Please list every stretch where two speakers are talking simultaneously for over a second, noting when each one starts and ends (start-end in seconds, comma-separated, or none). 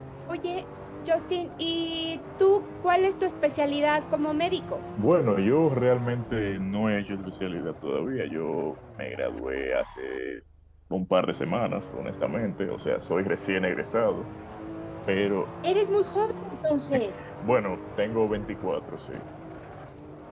none